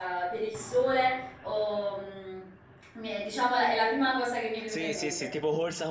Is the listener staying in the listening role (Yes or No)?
No